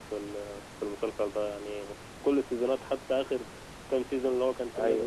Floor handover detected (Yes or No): No